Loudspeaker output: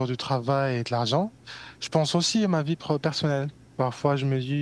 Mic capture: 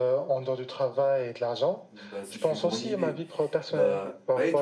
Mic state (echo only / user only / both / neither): both